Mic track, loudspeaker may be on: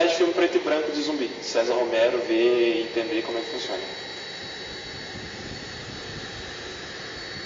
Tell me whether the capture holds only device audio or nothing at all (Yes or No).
Yes